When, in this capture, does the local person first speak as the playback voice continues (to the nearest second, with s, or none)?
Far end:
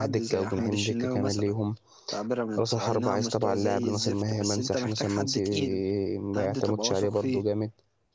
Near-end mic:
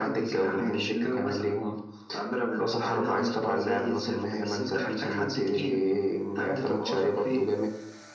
none